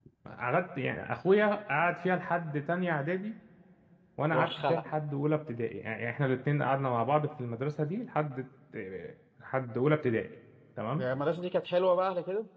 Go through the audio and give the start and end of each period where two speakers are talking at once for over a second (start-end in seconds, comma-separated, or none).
none